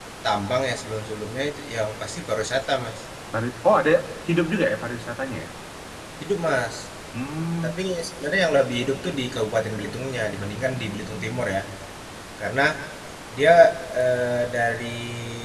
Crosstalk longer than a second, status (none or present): none